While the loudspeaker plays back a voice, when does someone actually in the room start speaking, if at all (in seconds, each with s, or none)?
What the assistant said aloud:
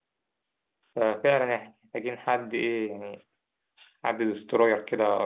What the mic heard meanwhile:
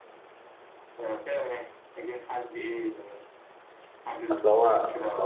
4.3 s